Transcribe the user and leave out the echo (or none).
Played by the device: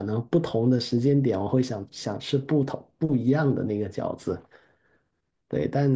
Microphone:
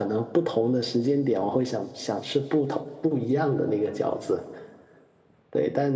none